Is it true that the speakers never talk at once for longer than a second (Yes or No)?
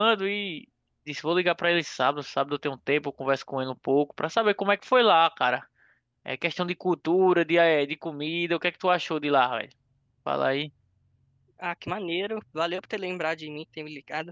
Yes